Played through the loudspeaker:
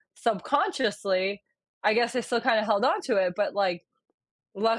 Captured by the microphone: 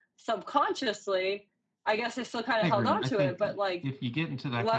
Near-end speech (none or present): present